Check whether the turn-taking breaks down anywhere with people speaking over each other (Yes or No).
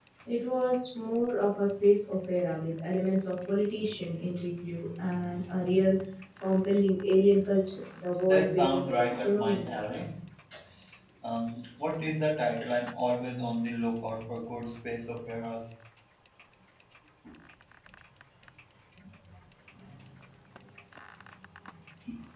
Yes